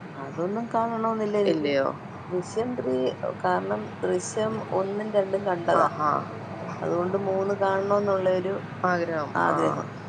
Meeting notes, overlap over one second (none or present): none